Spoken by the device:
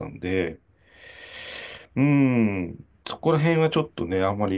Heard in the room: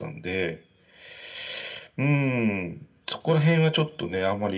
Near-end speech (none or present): none